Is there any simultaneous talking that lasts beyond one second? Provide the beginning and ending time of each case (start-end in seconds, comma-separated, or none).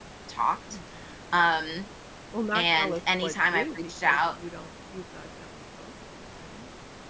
2.5-4.4